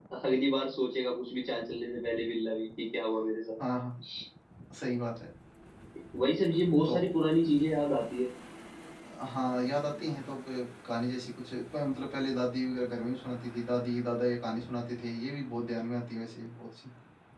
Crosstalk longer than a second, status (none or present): none